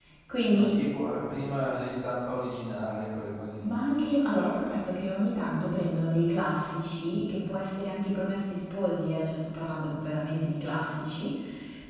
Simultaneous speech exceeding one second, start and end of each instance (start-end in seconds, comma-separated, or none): none